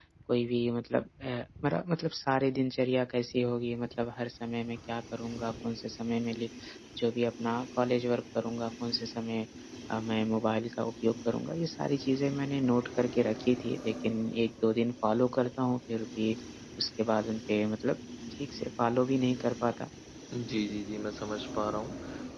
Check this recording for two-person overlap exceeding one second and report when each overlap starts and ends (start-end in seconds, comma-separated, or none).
none